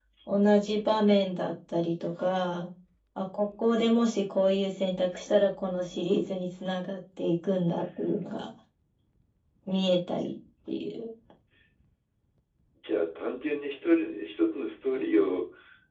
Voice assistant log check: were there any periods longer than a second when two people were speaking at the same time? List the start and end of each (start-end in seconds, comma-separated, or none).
none